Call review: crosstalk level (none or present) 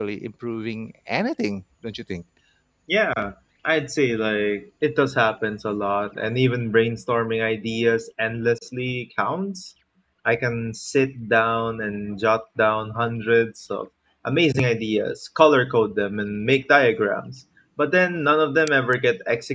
none